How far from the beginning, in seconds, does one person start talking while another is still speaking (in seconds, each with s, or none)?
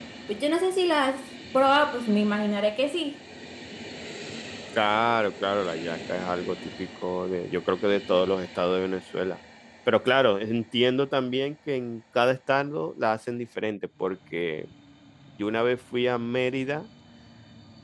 none